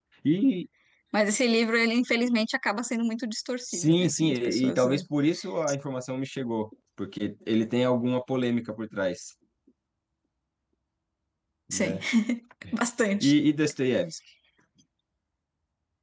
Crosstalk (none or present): present